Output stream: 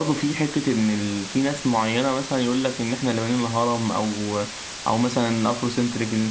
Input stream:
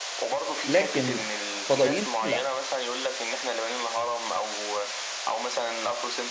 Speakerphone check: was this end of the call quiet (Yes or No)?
No